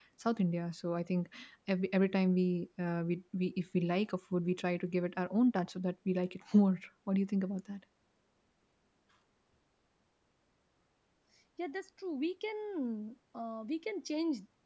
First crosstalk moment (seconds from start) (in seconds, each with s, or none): none